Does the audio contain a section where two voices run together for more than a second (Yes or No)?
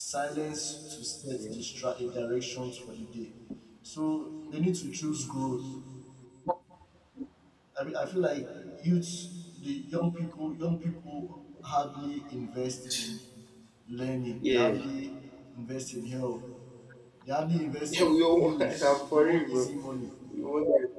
Yes